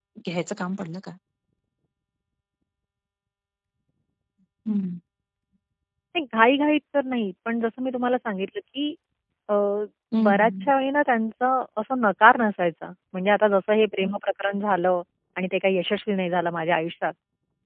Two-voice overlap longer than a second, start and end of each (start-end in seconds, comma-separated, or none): none